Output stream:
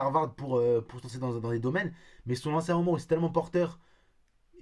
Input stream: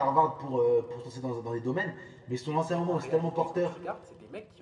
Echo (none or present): present